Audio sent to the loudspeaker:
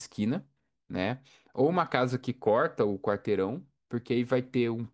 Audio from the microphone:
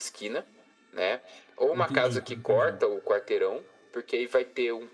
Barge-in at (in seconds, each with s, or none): 1.7 s